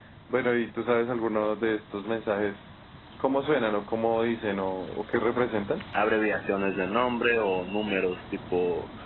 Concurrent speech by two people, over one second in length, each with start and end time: none

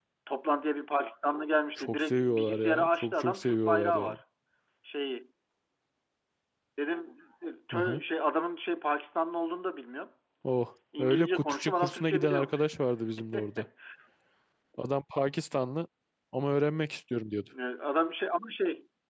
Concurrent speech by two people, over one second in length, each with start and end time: 1.8-4.2, 11.0-12.7

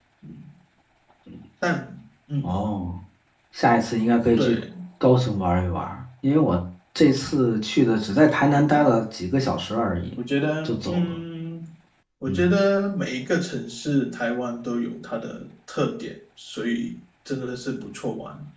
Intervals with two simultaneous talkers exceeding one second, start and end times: none

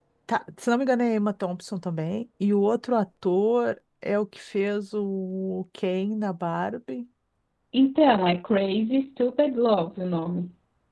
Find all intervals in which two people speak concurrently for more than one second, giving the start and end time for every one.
none

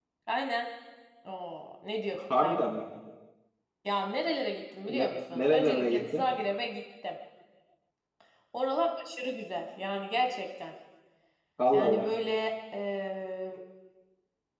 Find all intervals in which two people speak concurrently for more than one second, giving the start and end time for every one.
4.9-6.2

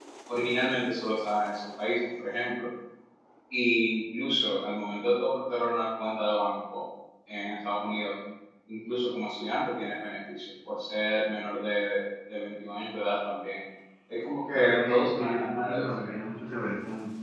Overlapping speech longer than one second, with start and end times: 14.5-16.2

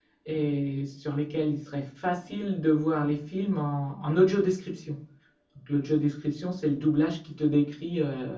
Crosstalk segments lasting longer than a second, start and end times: none

